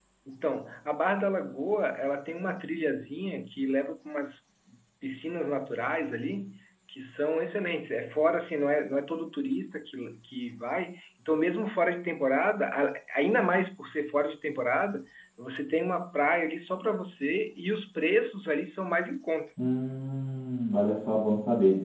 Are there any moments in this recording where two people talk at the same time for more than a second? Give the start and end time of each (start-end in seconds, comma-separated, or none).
none